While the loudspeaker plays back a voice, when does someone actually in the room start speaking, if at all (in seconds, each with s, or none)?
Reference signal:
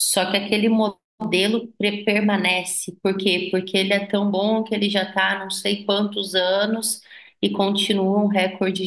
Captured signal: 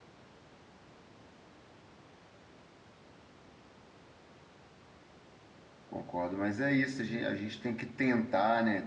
5.9 s